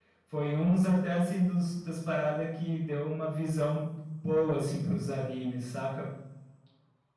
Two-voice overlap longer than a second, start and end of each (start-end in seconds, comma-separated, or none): none